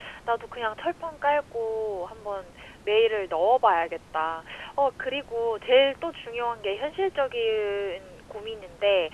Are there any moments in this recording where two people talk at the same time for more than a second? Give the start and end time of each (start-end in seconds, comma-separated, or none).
none